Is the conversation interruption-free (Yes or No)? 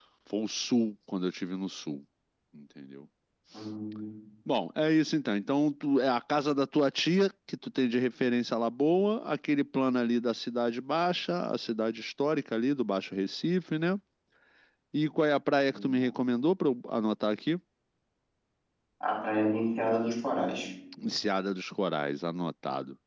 Yes